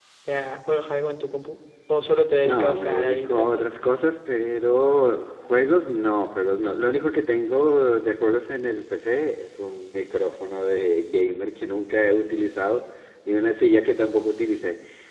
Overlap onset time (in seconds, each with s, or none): 2.4 s